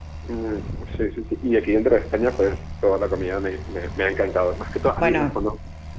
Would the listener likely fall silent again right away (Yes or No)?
Yes